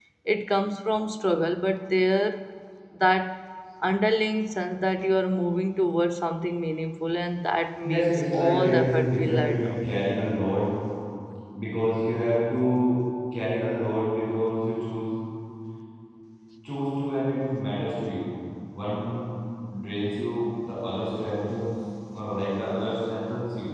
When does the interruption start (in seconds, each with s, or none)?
7.8 s